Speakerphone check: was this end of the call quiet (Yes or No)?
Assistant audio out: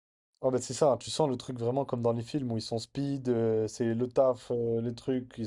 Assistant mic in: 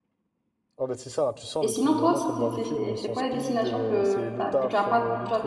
No